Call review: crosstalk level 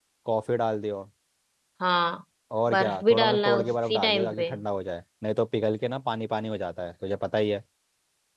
present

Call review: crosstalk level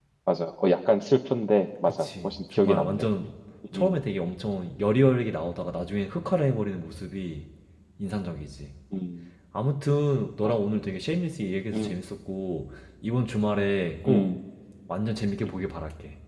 present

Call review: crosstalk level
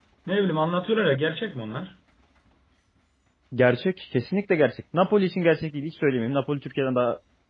none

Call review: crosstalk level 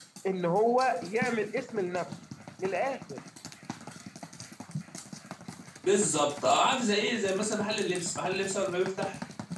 none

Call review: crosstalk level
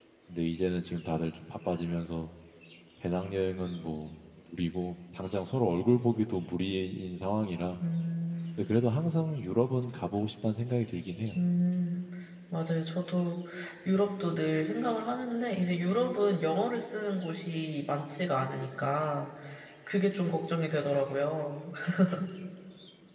none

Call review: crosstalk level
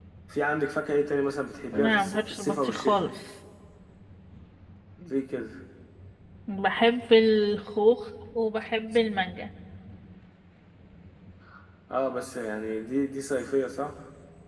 present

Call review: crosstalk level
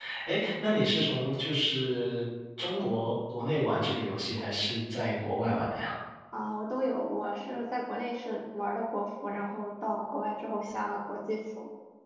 none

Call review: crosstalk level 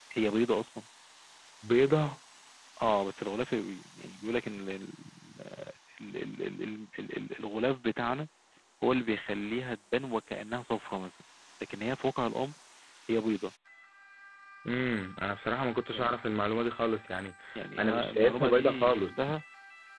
present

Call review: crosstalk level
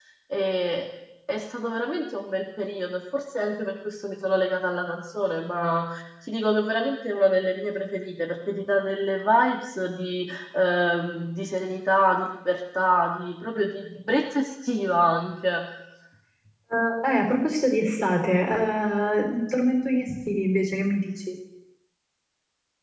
none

